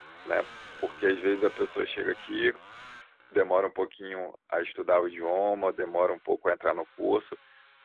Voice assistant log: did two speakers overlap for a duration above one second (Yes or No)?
No